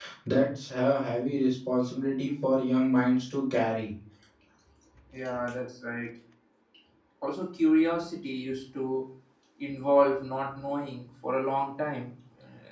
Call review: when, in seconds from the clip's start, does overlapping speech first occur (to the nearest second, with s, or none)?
none